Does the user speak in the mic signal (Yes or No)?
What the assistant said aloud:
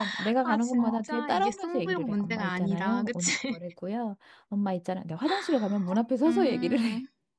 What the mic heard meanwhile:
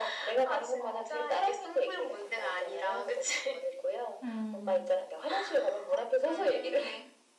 Yes